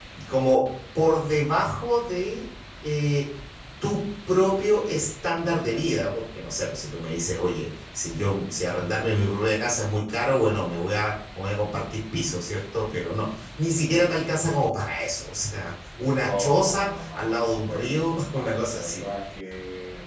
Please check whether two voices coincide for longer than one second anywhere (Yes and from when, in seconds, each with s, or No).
Yes, from 16.2 s